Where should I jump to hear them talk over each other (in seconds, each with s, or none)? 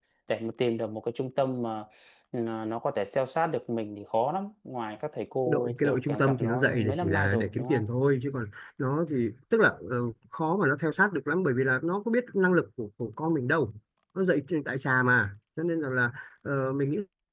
5.5 s